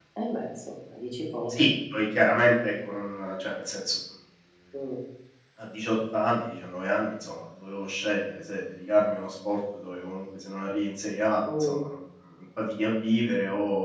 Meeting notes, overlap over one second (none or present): none